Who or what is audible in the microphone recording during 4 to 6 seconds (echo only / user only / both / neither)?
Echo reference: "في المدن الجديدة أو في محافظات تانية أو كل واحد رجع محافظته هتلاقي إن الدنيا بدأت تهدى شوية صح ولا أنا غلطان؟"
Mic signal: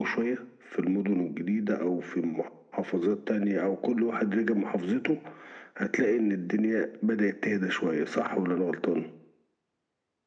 echo only